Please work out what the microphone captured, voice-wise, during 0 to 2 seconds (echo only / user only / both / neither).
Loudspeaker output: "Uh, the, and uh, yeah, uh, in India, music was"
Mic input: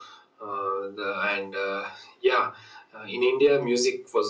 echo only